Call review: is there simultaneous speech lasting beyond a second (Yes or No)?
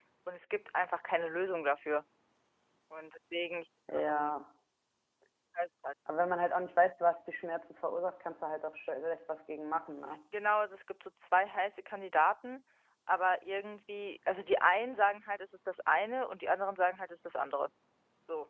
No